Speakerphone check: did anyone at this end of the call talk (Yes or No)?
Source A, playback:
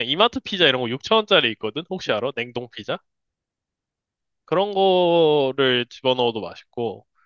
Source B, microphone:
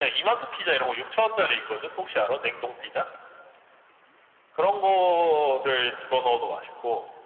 No